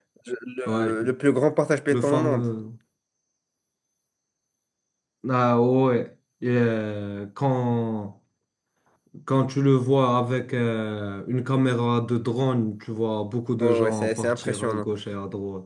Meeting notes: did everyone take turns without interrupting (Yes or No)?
No